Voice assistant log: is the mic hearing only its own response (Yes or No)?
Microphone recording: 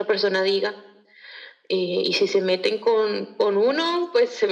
Yes